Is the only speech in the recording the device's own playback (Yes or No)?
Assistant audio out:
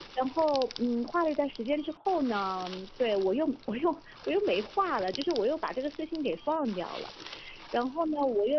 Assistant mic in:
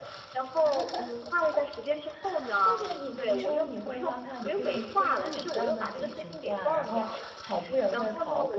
No